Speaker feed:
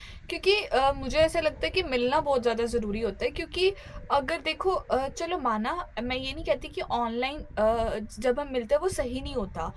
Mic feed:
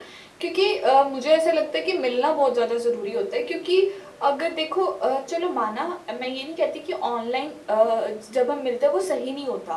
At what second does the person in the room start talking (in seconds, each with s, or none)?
none